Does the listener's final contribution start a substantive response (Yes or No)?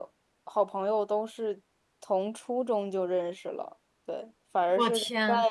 No